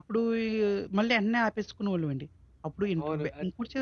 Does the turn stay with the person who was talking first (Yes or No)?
No